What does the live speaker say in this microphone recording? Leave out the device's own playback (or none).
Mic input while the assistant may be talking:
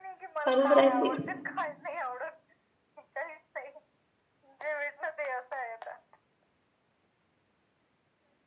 चालूच राहते.